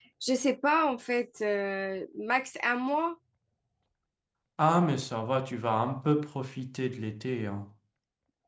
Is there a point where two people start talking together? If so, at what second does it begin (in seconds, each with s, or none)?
none